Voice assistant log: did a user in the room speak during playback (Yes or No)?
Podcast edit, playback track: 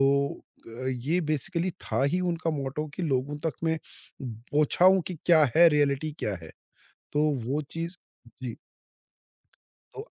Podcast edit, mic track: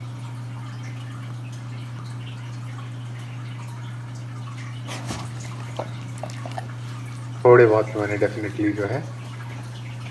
Yes